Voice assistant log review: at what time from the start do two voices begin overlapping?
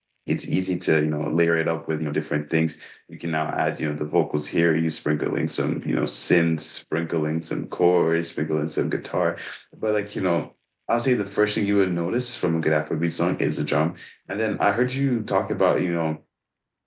none

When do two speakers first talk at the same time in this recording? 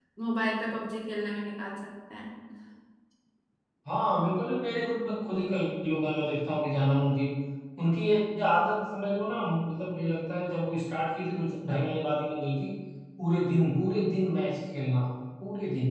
none

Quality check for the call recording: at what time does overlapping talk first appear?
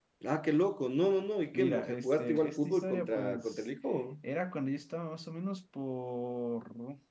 1.5 s

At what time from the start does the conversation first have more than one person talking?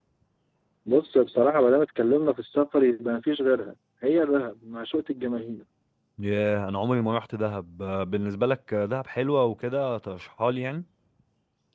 none

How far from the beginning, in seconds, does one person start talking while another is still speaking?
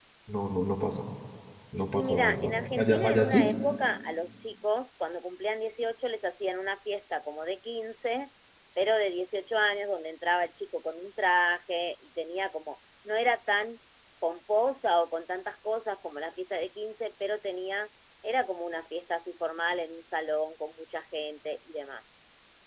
1.9 s

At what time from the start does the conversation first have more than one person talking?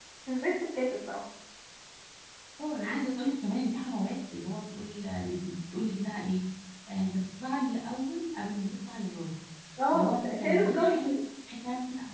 9.9 s

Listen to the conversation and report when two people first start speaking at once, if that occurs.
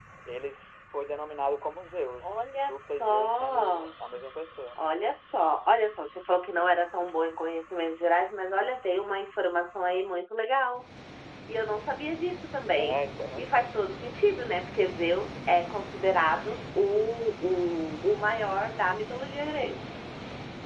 2.2 s

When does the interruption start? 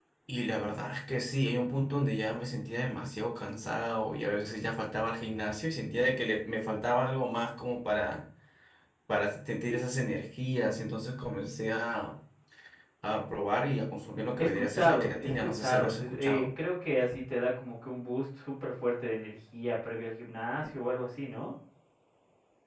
14.4 s

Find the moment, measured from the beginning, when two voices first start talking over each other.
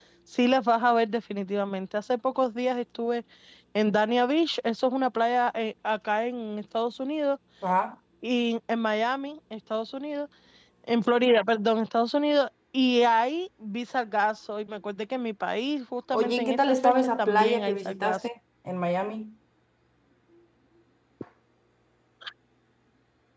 16.1 s

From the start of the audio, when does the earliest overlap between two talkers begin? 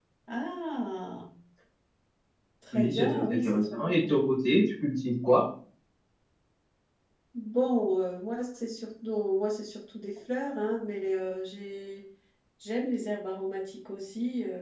2.7 s

